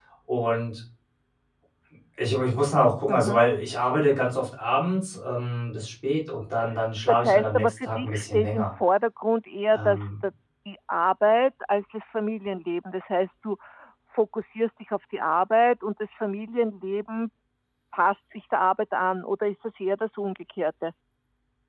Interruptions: present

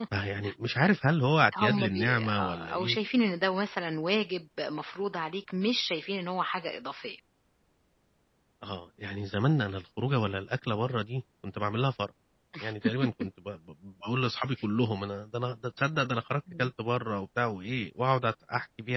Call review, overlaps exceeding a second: present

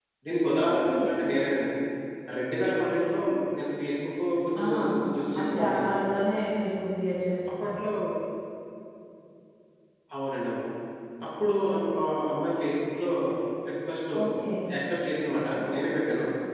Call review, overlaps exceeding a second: none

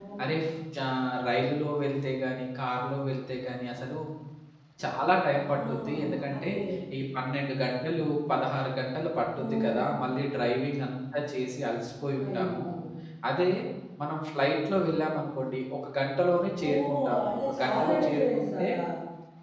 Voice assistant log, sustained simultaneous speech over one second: present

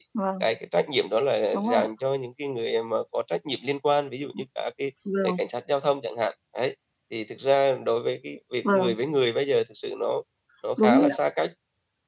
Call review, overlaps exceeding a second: none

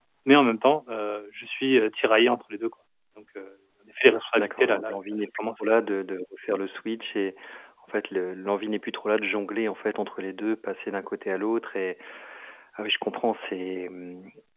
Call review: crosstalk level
present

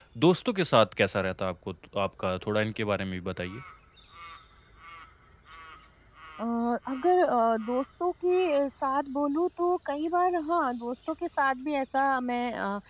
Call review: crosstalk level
none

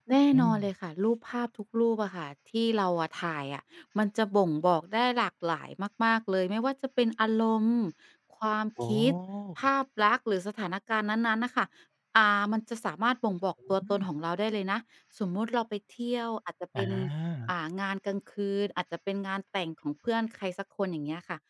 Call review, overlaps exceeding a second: none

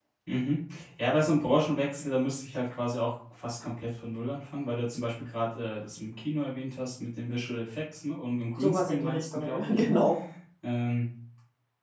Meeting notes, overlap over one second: present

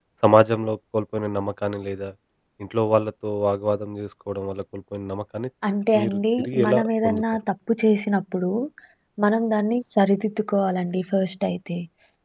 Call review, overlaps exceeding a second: present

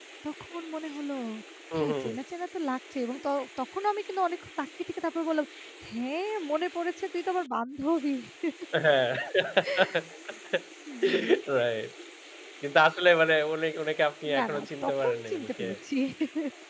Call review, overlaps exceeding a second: present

